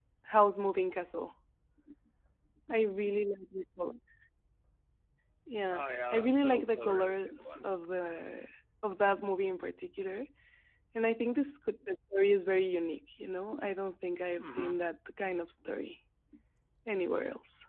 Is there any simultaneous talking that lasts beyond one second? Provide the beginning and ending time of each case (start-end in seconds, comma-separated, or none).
5.7-7.7